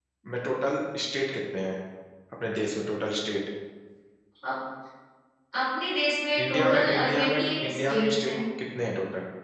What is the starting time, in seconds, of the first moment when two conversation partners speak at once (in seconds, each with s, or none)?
6.5 s